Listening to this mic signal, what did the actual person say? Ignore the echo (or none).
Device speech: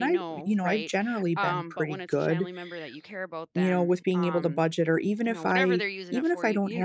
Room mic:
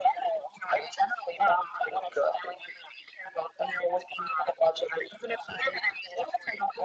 none